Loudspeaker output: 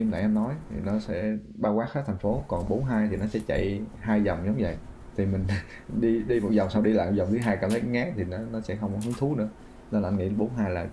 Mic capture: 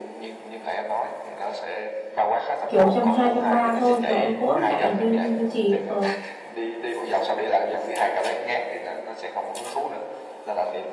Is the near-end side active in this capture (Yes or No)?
Yes